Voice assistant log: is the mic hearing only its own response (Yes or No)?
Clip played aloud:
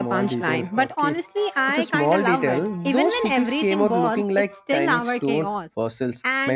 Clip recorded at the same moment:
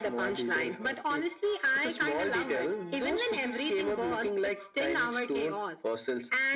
Yes